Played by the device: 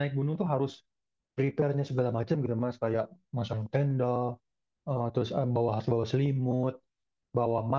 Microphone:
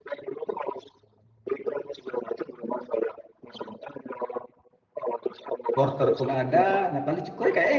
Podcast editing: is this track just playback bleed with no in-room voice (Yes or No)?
No